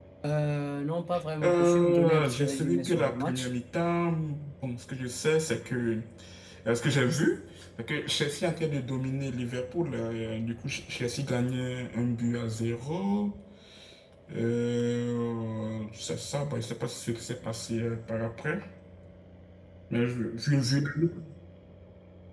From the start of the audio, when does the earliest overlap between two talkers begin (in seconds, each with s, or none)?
1.4 s